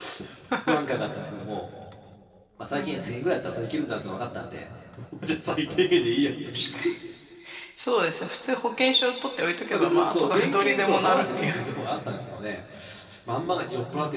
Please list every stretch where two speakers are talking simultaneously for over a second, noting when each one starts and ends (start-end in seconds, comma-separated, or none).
9.7-11.5